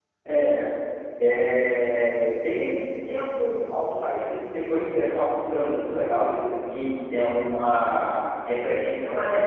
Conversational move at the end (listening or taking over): taking over